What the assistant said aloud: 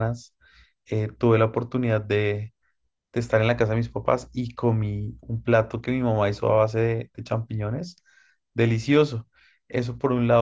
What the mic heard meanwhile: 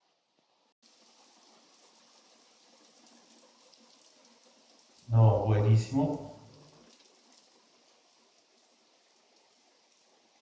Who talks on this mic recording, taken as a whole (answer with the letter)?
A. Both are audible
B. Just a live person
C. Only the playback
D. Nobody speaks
B